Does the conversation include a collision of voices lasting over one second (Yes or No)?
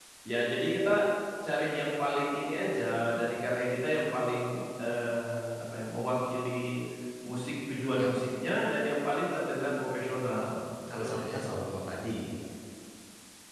No